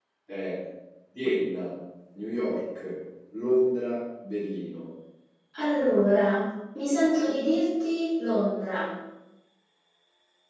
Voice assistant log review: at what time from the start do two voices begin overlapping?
none

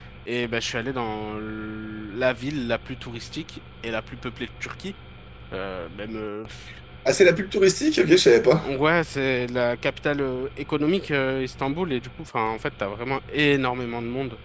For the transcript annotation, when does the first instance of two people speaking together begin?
none

